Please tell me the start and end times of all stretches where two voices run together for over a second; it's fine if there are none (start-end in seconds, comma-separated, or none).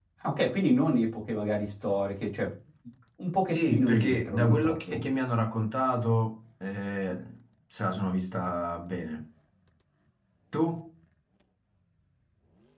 3.5-5.0